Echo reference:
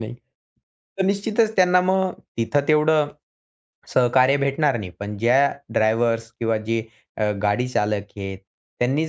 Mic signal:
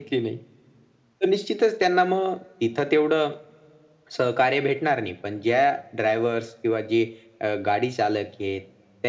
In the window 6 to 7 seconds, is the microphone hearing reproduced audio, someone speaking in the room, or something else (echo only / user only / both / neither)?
echo only